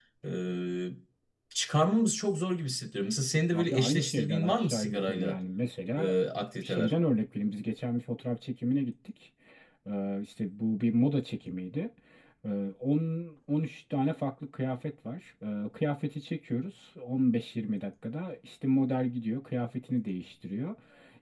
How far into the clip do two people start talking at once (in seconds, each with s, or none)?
3.5 s